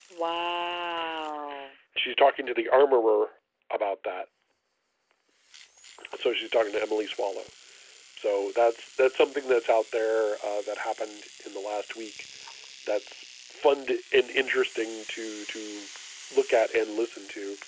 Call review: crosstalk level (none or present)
none